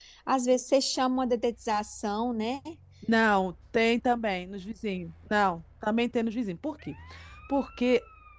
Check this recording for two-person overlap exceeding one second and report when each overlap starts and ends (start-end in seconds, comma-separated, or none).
none